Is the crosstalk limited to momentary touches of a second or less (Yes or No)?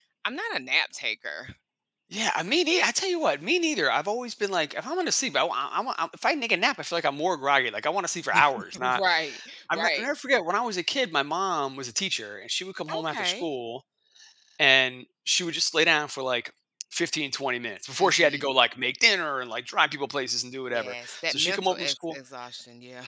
No